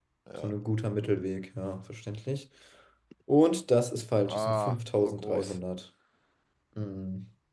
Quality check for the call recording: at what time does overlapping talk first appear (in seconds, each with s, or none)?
4.3 s